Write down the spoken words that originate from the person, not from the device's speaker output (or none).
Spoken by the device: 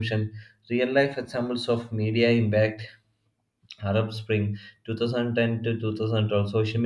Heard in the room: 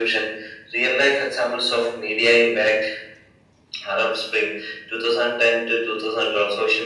none